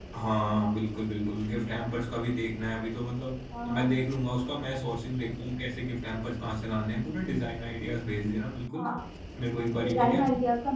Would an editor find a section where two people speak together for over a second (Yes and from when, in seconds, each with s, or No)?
No